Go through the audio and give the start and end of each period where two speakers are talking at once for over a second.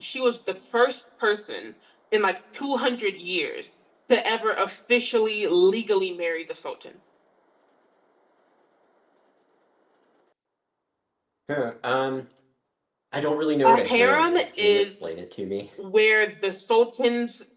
13.6-14.9

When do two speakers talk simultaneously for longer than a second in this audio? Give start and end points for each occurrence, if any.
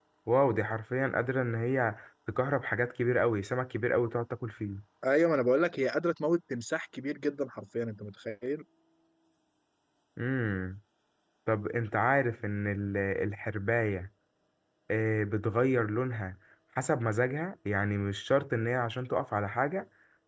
none

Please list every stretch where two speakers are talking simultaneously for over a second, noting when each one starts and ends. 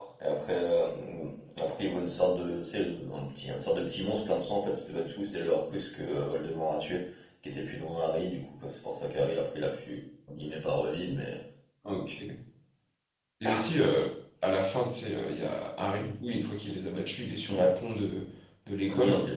none

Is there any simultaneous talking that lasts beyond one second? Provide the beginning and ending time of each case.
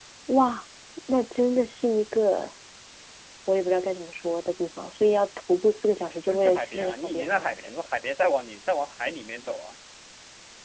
6.3-7.6

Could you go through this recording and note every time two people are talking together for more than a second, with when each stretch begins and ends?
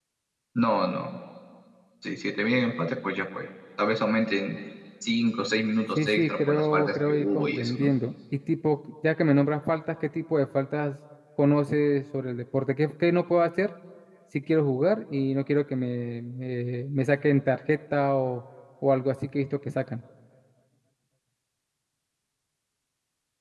6.0-7.9

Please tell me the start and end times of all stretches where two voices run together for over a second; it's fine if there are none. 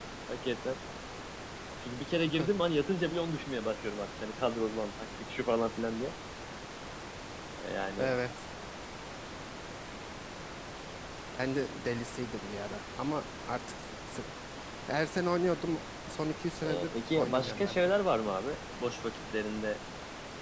16.6-17.9

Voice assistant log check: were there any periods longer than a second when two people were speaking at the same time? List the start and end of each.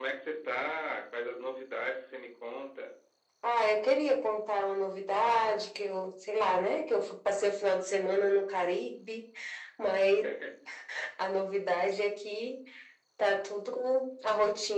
none

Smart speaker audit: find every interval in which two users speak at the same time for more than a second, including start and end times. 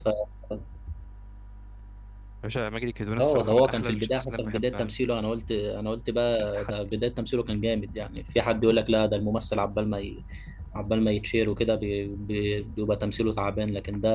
3.2-4.9

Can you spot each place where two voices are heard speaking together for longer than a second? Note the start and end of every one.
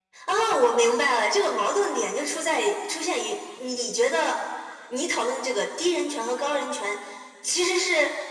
none

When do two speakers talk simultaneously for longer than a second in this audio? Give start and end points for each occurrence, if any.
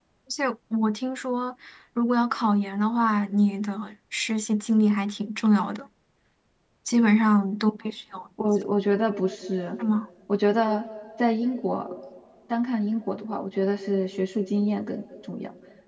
none

